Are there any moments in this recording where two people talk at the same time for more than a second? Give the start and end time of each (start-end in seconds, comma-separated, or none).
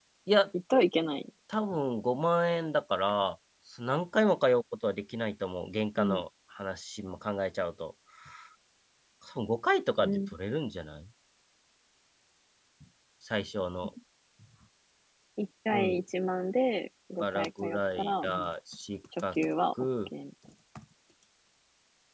17.2-18.5